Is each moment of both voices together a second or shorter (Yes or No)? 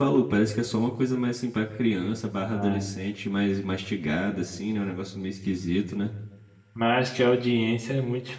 Yes